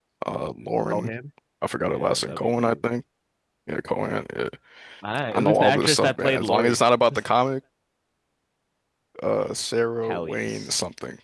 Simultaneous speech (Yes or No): Yes